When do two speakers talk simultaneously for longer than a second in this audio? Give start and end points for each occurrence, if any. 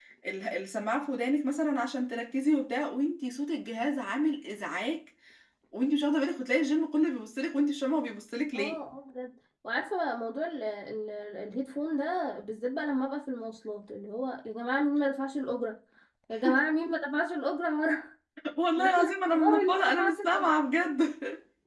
18.8-20.5

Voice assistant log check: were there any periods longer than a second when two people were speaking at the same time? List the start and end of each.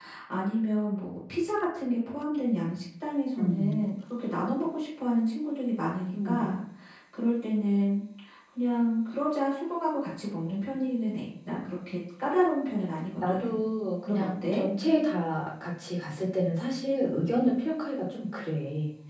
none

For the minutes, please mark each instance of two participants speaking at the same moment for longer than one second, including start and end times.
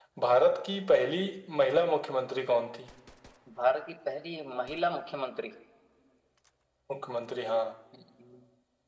none

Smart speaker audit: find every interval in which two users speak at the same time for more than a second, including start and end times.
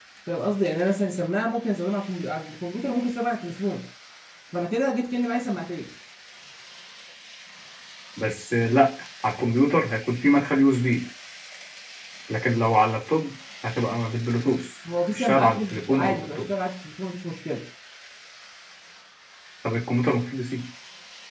15.1-16.4

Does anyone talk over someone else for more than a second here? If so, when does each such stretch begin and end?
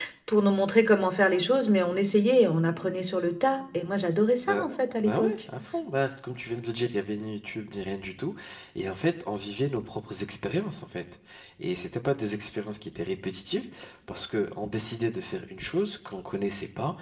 none

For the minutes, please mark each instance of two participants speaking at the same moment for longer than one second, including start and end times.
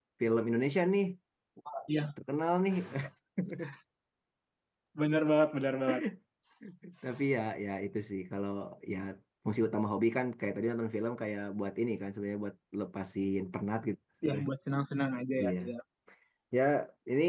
none

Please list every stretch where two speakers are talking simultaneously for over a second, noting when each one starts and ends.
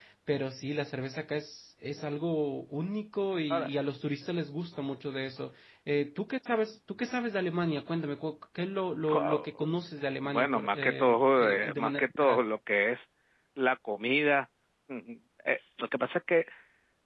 10.2-12.4

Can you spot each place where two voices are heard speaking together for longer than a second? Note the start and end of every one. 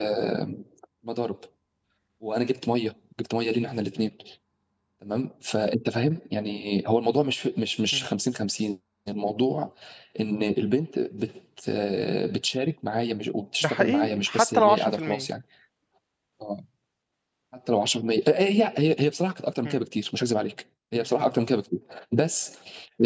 13.6-15.3

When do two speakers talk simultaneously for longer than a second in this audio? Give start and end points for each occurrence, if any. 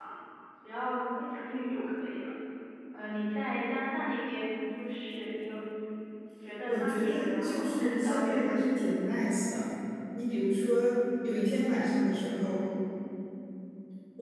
6.7-8.5

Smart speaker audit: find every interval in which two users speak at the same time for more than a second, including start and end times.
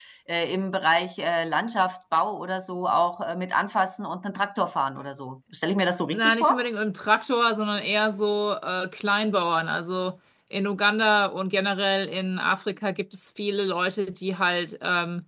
none

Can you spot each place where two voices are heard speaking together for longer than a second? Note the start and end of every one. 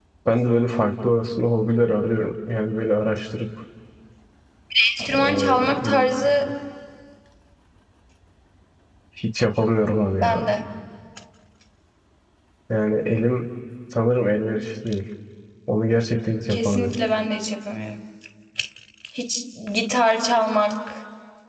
5.2-6.5

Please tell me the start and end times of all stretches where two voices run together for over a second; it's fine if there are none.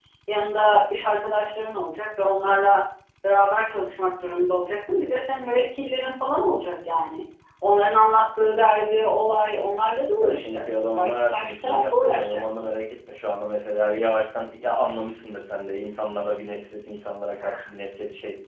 10.2-12.7

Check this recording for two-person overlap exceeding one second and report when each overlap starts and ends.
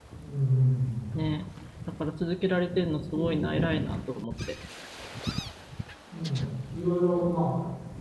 none

